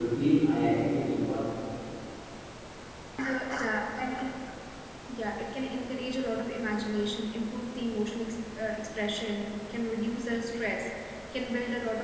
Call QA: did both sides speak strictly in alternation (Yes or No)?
Yes